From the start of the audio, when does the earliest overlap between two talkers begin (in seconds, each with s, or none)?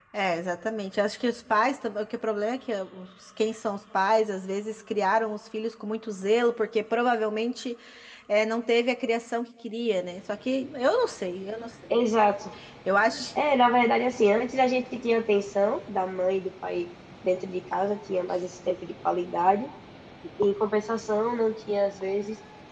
none